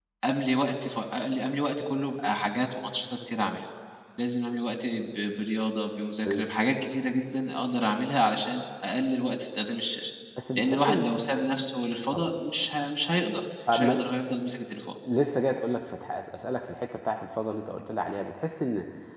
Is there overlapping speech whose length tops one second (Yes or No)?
No